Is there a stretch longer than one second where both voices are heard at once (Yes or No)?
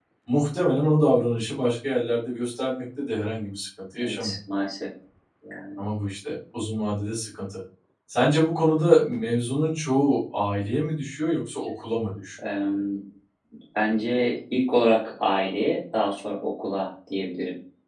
No